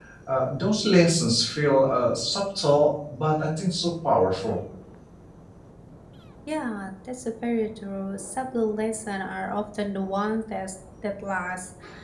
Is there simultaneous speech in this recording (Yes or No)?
No